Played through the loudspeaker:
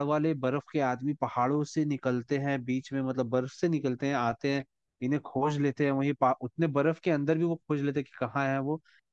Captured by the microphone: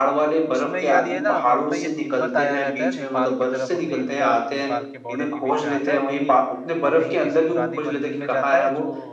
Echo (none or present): present